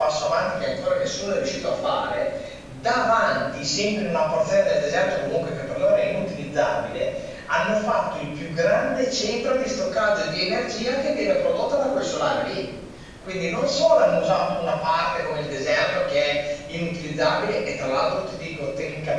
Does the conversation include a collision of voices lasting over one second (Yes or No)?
No